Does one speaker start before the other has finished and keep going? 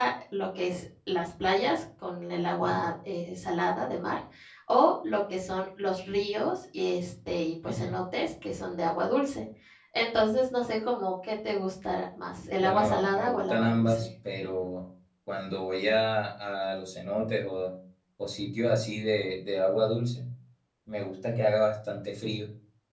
Yes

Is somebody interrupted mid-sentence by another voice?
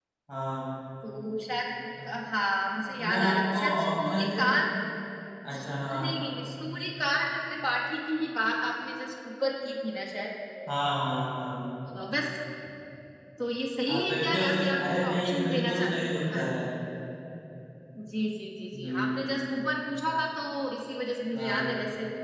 Yes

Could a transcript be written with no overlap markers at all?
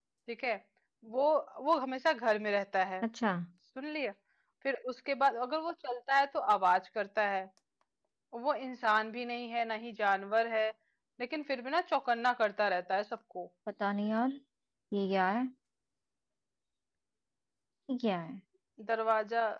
Yes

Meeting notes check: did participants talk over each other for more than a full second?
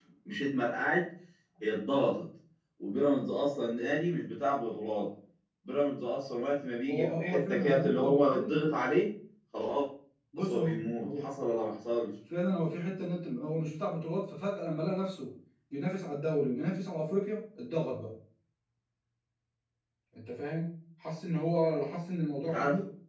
Yes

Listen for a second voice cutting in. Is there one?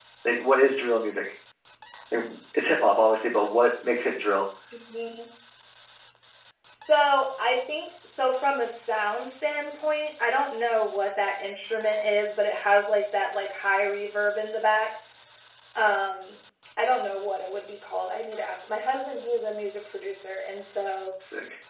No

